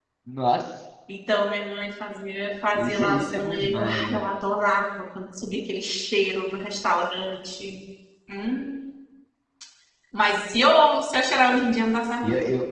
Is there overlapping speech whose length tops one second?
Yes, from 2.7 s

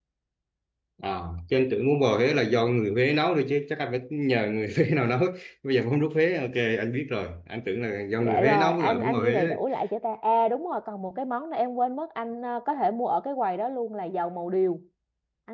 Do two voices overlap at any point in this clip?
Yes, from 8.2 s

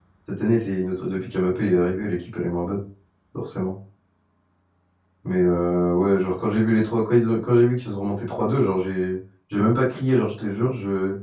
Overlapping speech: No

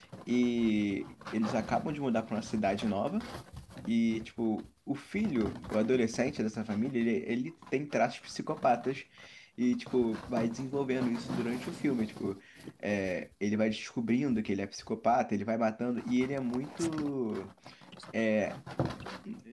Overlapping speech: No

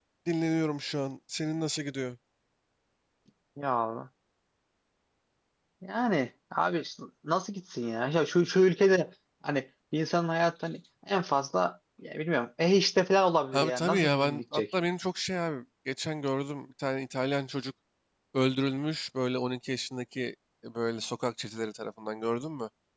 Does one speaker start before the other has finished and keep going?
Yes, from 13.5 s

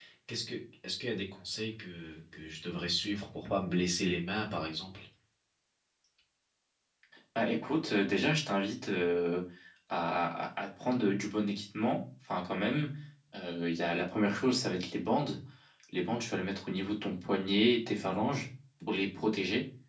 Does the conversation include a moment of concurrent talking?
No

